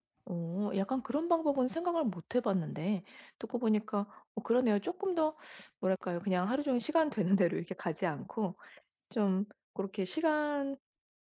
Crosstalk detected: No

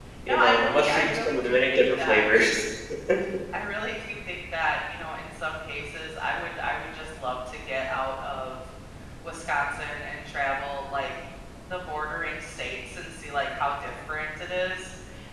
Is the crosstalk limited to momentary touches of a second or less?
No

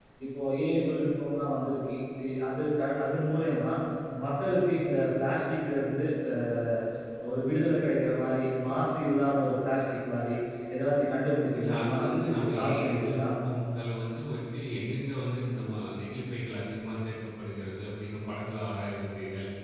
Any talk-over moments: Yes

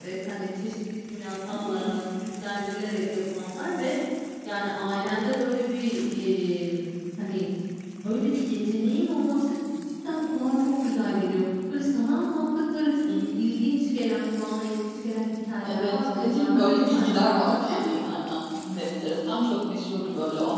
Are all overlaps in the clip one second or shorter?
No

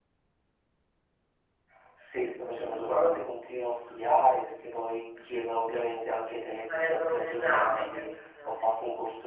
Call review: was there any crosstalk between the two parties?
Yes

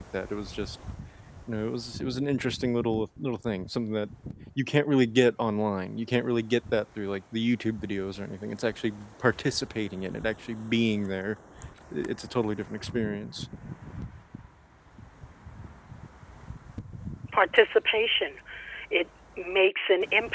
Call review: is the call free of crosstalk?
Yes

